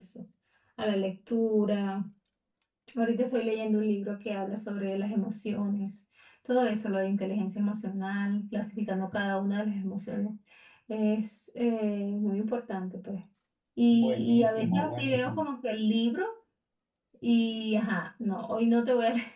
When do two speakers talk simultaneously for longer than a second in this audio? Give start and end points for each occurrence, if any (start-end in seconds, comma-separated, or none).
13.9-15.4